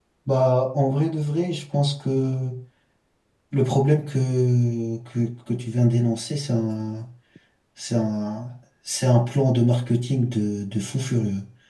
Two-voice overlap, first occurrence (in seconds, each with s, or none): none